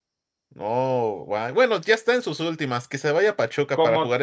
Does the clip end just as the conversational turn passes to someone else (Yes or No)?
Yes